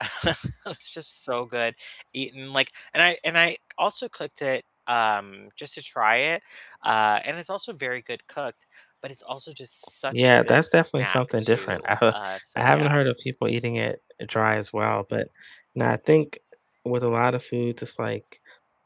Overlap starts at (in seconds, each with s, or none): 10.1 s